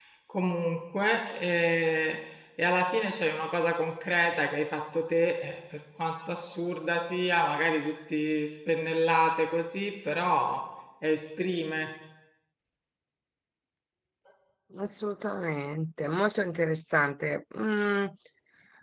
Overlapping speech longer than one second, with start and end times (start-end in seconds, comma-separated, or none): none